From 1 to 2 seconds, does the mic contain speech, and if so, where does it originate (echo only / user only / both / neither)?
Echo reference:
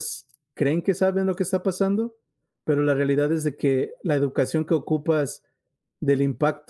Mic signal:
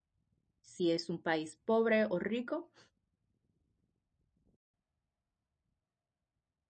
user only